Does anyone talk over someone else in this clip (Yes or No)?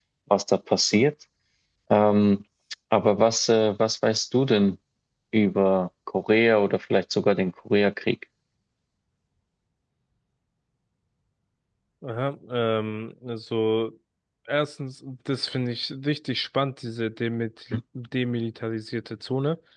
No